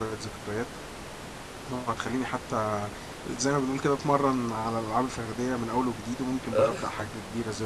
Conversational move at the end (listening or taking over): listening